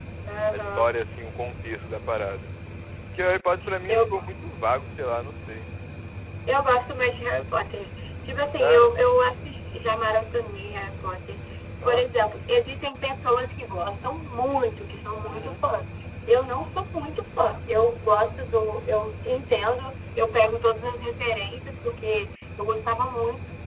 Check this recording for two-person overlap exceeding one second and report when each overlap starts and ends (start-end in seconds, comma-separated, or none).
none